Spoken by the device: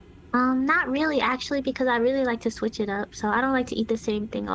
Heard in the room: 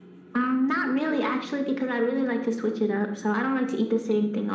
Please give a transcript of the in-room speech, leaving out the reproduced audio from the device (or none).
none